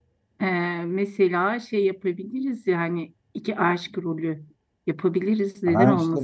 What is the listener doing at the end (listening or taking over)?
taking over